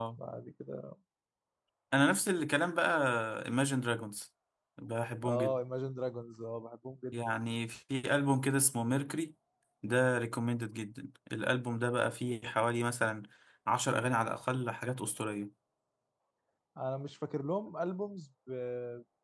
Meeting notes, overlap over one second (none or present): none